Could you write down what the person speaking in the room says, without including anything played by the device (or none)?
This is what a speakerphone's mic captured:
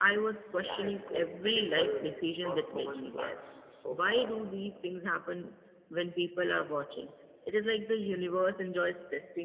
Yeah, it's going pretty well. Not so much plans so far.